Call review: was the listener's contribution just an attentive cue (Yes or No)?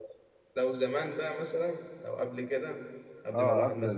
No